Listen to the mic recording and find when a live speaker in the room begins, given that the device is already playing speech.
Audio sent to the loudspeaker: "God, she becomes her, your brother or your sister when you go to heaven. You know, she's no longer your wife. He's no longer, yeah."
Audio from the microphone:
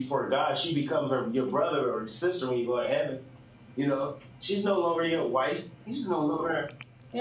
none

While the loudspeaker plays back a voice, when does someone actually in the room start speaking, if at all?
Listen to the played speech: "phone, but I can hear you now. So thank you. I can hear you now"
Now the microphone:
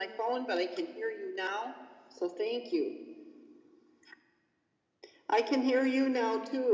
none

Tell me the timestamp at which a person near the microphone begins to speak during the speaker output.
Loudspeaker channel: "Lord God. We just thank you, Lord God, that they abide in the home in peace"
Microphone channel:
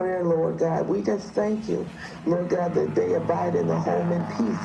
none

